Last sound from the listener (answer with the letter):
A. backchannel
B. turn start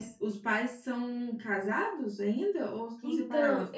B